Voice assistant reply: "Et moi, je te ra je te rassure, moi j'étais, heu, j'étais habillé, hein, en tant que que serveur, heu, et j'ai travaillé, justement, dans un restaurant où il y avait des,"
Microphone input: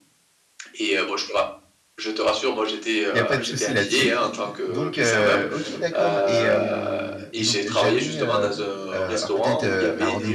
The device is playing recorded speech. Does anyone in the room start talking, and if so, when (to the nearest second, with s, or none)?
3 s